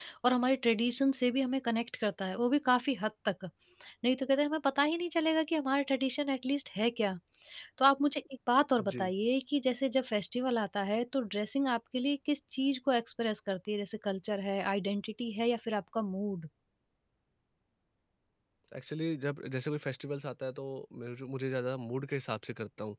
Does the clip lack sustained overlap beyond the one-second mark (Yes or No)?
Yes